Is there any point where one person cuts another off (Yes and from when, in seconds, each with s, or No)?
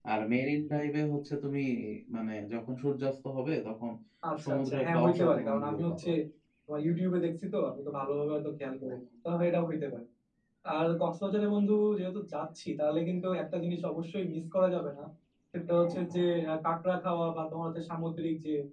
Yes, from 4.4 s